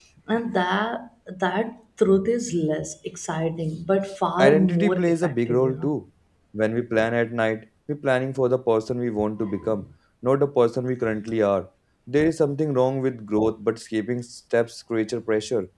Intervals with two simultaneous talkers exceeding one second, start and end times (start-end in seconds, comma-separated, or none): 4.4-5.9